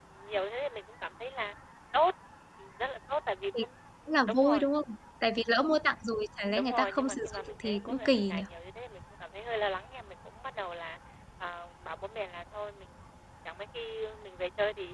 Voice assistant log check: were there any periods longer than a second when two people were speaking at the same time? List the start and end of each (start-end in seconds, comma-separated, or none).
6.5-8.4